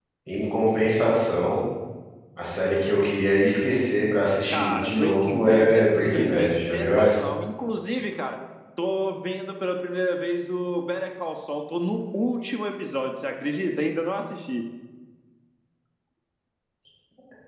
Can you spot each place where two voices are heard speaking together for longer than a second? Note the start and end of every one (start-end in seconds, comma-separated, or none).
4.5-7.2